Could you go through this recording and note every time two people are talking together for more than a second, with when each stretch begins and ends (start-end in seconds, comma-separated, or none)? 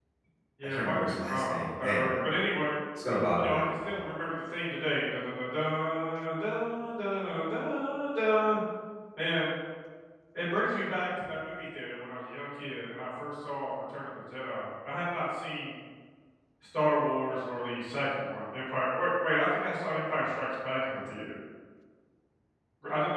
0.6-2.1